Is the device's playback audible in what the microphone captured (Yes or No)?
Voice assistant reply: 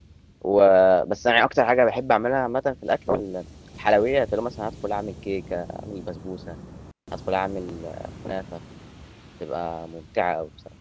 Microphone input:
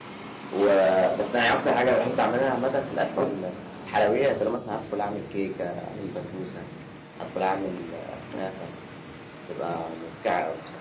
Yes